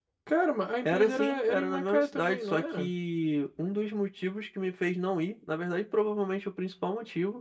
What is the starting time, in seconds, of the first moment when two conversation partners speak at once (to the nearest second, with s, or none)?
1 s